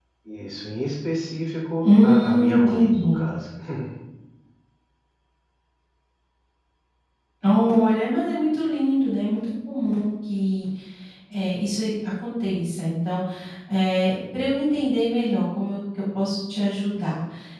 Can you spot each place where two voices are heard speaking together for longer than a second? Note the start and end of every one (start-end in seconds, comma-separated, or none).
1.8-3.2